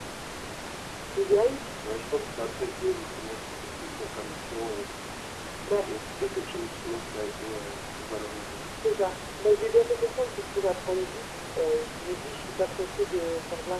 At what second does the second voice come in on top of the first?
none

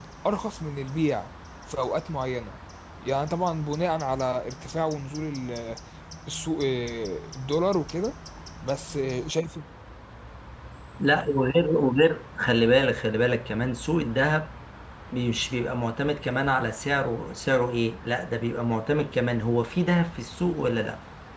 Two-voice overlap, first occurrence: none

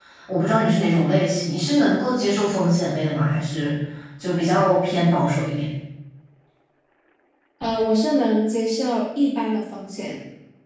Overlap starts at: none

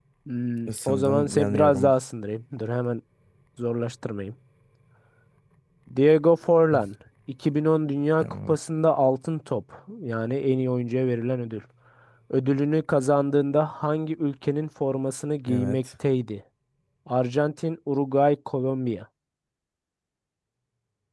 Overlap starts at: 0.7 s

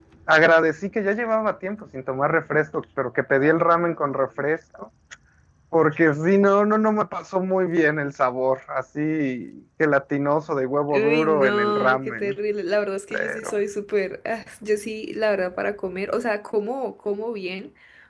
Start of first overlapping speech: 10.9 s

